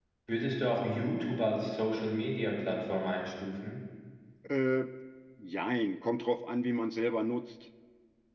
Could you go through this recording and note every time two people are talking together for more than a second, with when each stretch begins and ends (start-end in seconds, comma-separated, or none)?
none